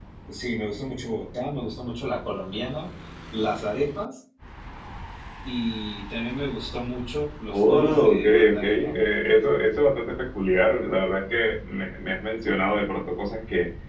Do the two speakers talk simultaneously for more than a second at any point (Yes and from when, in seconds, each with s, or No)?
Yes, from 7.5 s